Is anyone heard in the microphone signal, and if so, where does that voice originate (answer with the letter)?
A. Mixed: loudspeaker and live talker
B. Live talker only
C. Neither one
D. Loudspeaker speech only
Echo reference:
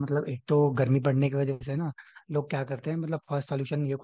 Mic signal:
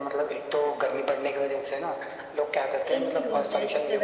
A